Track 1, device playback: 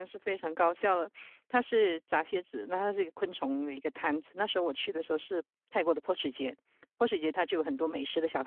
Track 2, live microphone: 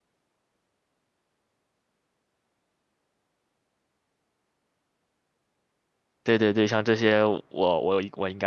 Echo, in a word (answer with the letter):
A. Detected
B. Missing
B